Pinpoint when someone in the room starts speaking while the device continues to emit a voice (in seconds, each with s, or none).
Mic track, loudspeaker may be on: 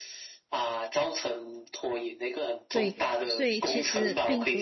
2.7 s